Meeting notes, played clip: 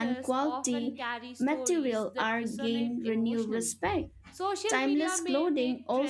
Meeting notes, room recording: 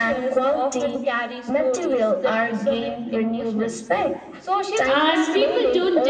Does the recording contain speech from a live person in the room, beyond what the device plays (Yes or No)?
Yes